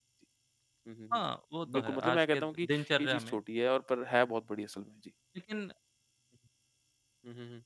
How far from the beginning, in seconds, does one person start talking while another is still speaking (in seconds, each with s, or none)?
1.7 s